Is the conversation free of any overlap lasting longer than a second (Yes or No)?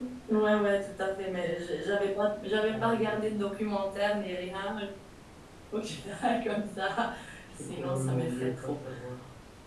No